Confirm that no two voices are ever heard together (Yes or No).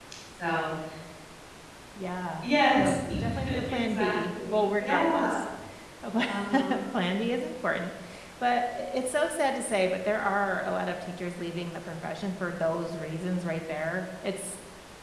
No